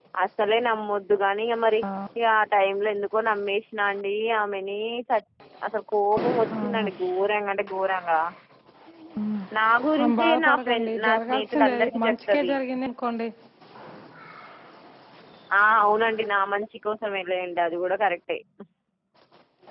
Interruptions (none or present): present